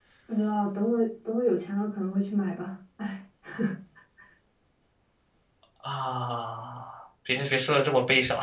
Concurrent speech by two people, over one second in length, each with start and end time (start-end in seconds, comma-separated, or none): none